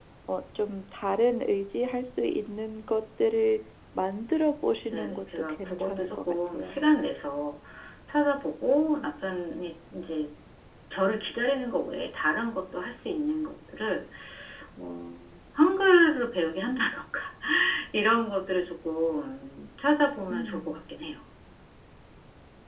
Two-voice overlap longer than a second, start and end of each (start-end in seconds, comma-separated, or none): 4.9-6.8